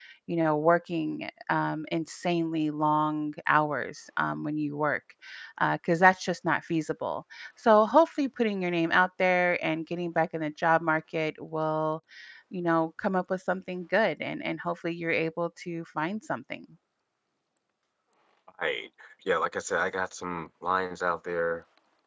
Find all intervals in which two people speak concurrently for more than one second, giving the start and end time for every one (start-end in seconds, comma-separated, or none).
none